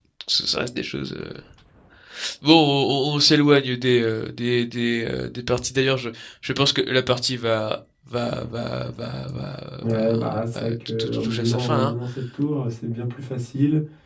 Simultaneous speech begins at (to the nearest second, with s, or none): 10 s